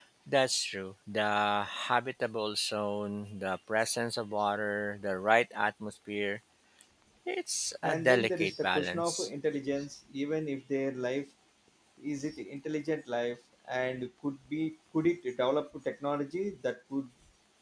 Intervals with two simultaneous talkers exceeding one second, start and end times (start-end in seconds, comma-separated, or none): 7.8-9.3